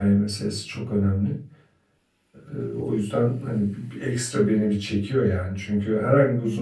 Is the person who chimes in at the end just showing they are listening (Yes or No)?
Yes